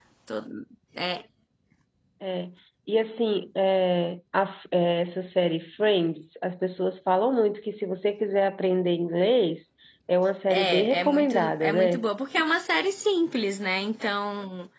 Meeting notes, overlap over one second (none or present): present